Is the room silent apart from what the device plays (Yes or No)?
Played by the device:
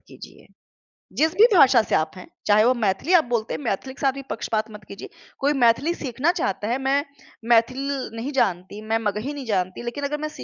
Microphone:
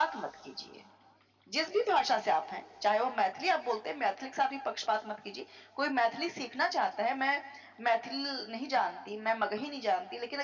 Yes